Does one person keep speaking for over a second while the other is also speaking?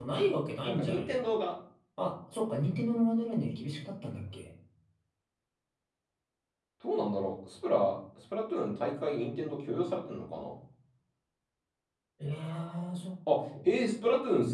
No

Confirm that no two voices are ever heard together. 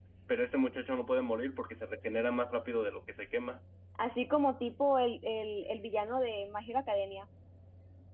Yes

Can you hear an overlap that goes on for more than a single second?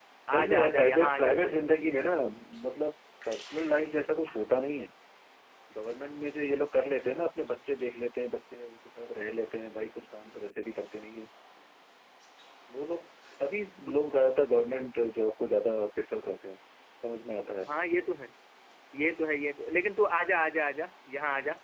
Yes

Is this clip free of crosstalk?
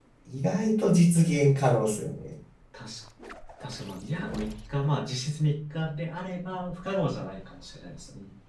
Yes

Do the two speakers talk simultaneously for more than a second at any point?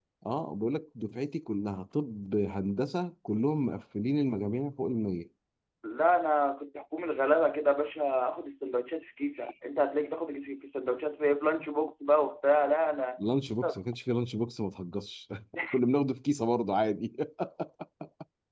No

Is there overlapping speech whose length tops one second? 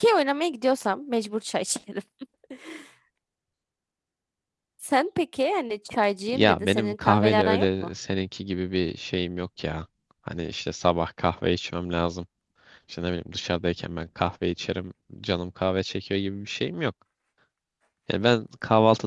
Yes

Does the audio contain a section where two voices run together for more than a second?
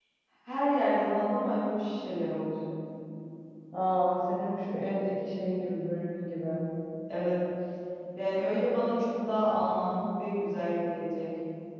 No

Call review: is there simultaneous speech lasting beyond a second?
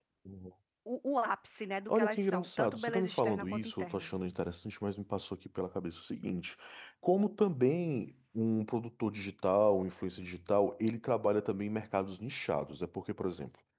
Yes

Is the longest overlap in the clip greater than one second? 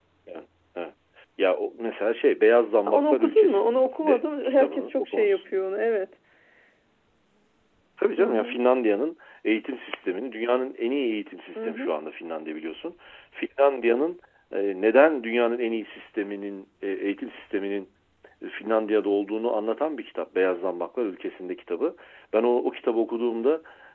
Yes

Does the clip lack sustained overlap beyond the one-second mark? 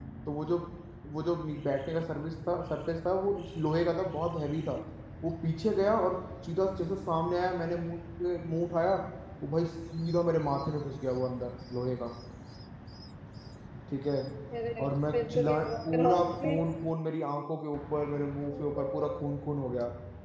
No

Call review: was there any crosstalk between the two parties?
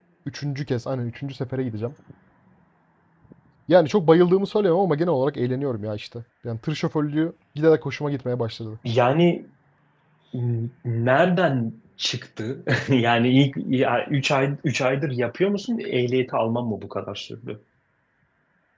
No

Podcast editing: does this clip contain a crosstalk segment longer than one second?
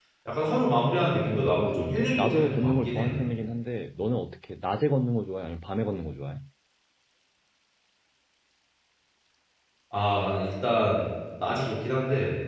Yes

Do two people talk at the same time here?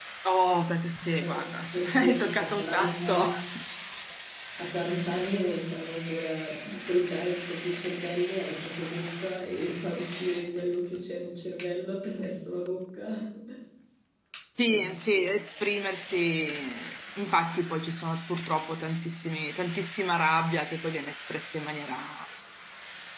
Yes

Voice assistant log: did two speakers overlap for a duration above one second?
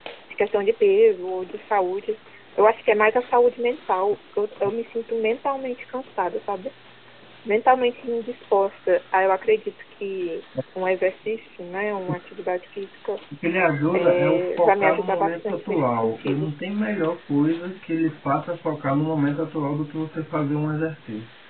Yes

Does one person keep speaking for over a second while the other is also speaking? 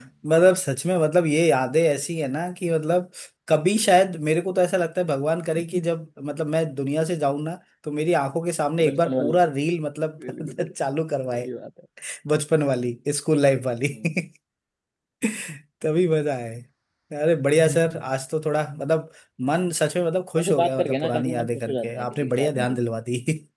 Yes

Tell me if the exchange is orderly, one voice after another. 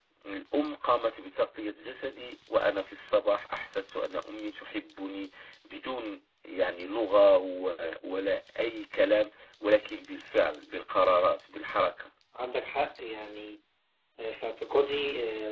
Yes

